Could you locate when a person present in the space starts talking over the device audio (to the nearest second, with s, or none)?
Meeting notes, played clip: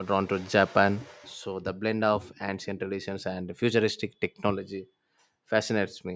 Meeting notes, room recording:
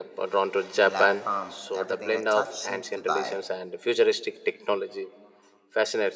1 s